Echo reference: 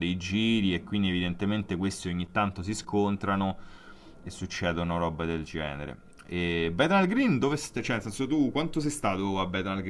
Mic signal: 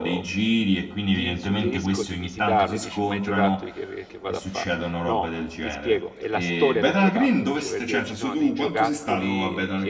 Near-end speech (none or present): present